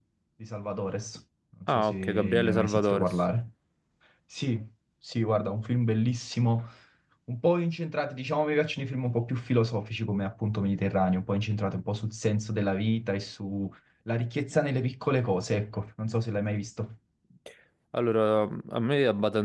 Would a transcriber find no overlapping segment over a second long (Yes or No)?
No